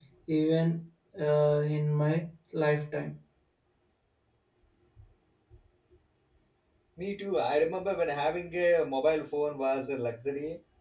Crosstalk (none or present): none